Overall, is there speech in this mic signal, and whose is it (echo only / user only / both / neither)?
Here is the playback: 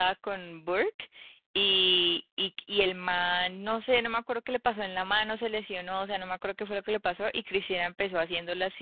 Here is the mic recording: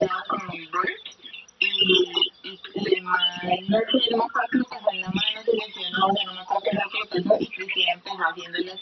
echo only